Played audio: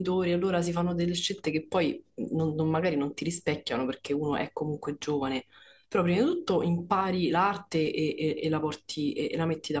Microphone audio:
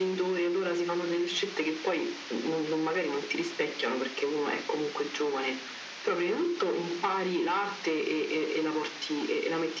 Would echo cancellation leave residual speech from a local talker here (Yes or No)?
No